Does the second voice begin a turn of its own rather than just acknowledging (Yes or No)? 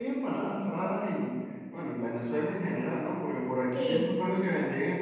No